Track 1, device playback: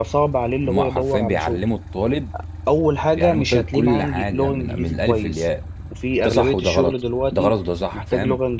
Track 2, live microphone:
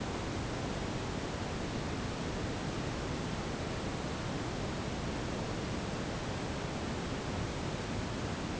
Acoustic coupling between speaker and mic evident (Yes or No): No